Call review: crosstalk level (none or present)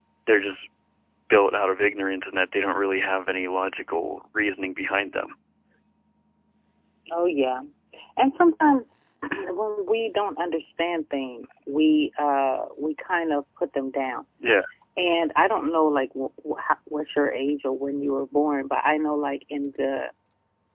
none